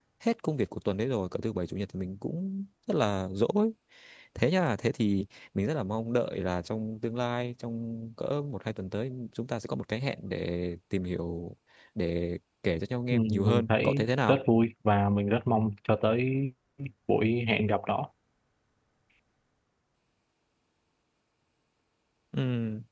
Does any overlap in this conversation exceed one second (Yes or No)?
Yes